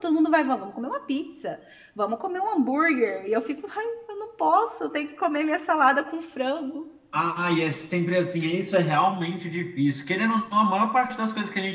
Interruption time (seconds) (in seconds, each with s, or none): none